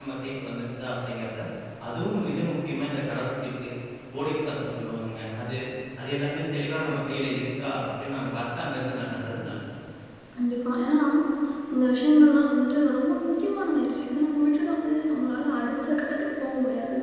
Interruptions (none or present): none